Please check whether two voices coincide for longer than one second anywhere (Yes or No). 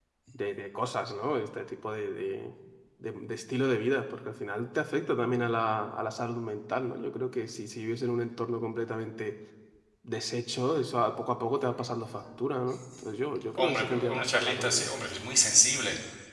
Yes